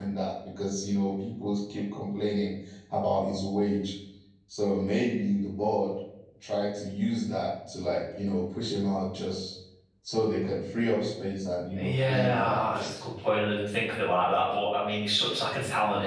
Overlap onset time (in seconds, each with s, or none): 11.8 s